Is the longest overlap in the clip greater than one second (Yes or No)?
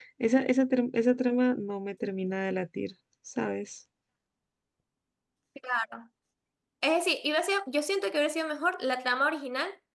No